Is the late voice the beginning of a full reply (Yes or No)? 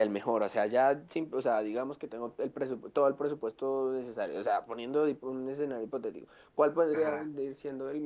No